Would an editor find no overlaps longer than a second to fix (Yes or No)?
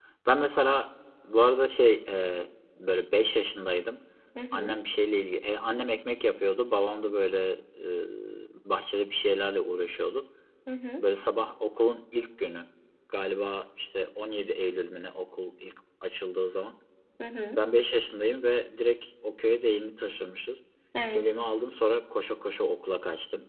Yes